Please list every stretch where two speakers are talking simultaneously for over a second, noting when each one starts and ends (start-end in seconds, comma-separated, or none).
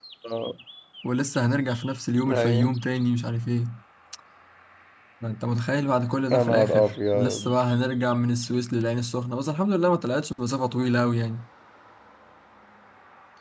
6.3-7.5